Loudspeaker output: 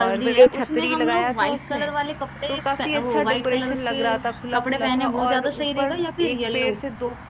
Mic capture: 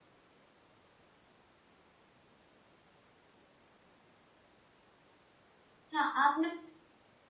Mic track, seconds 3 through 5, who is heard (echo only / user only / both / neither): neither